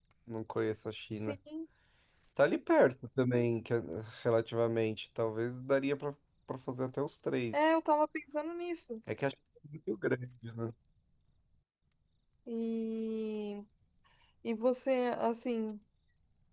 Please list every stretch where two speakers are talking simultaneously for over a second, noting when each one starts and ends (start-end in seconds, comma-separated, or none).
none